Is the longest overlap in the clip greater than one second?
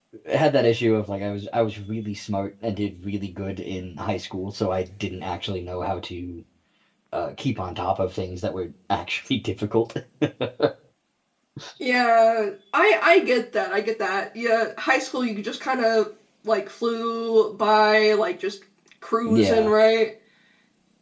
No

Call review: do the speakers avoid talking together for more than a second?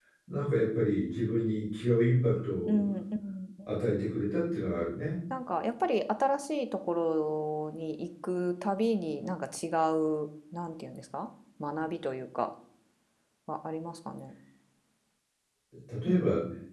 Yes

